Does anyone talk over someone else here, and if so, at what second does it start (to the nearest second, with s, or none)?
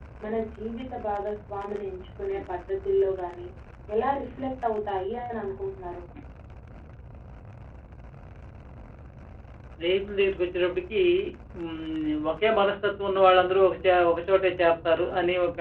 none